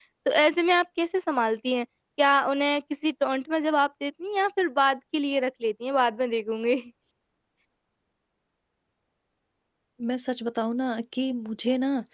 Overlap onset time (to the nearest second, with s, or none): none